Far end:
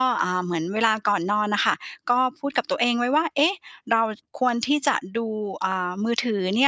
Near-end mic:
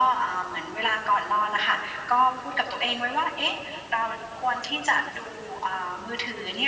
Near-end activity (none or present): none